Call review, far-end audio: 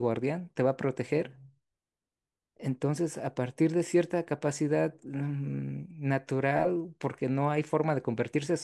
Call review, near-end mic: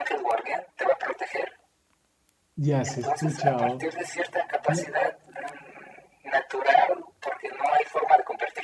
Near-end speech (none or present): present